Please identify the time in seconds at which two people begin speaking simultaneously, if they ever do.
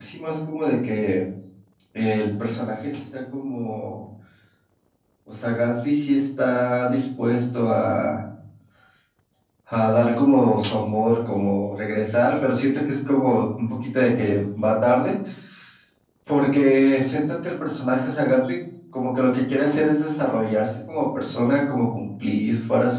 none

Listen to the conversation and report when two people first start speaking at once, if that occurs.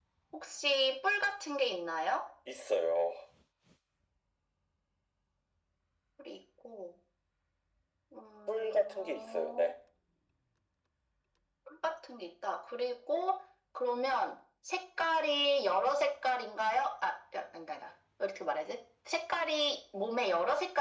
8 s

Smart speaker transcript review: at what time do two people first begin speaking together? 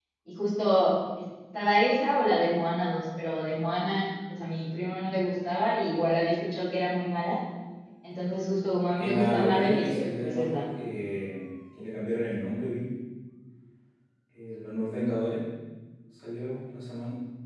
9 s

